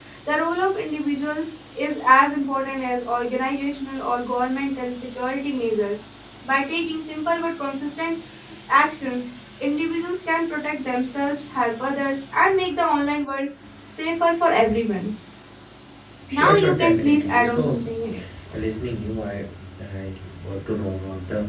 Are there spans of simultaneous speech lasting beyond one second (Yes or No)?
Yes